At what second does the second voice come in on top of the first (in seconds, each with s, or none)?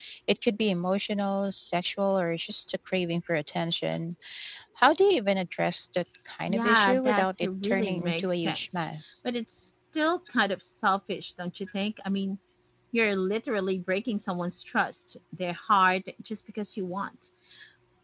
6.5 s